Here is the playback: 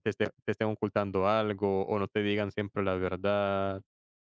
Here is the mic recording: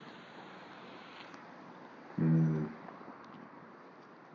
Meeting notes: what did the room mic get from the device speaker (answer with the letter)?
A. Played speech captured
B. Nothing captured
B